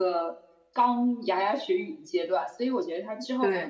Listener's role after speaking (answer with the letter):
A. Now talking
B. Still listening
B